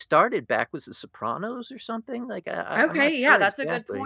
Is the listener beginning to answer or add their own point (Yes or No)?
Yes